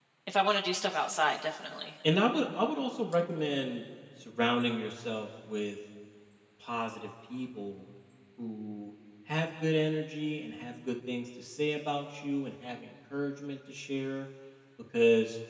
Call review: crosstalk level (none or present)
none